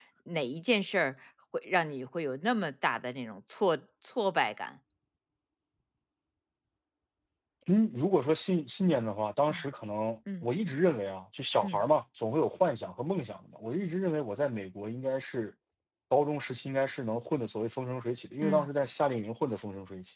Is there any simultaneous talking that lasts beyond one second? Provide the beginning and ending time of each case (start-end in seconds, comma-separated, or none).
none